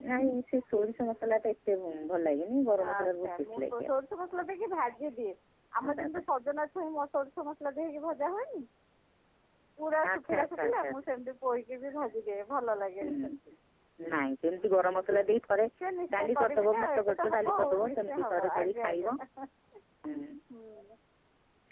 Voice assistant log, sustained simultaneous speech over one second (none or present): present